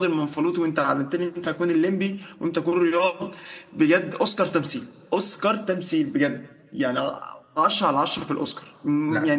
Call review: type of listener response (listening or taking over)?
listening